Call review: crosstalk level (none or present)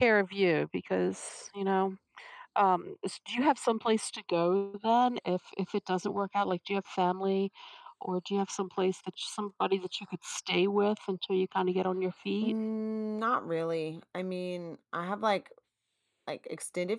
none